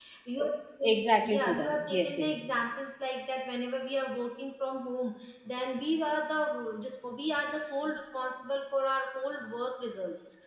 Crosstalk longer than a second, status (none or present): present